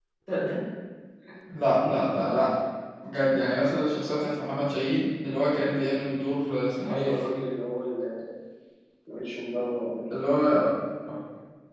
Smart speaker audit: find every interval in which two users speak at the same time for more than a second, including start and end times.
none

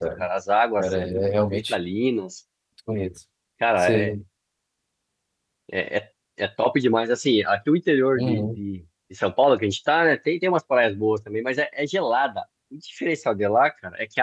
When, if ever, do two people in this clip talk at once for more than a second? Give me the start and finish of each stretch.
none

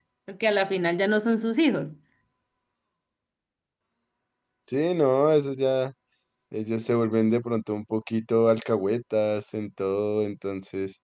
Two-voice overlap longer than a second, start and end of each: none

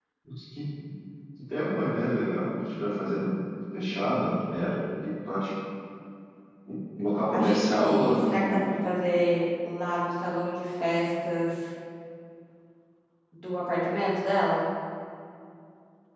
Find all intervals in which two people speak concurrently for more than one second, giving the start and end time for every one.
7.3-8.9

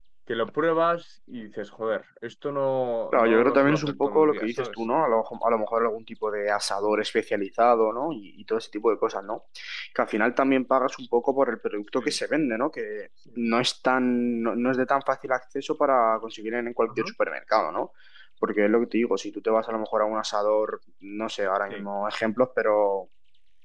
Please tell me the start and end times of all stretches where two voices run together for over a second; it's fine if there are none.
3.1-4.7

